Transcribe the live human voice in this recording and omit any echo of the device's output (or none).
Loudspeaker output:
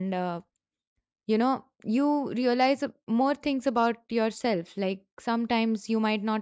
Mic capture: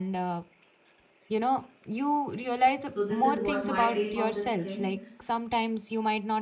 So, this is what my take on this thing.